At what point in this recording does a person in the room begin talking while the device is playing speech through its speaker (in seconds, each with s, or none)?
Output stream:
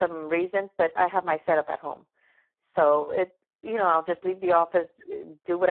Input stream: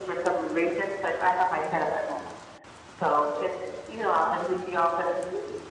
none